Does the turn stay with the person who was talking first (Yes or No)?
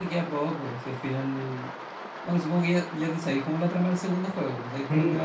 No